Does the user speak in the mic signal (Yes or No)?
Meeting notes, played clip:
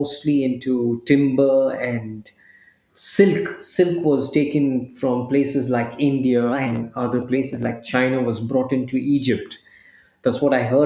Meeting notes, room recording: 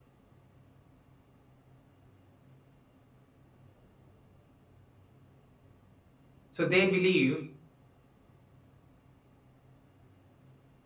Yes